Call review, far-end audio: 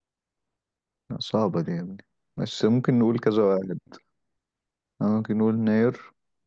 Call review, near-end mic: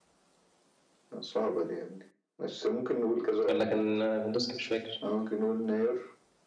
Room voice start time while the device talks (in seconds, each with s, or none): 3.5 s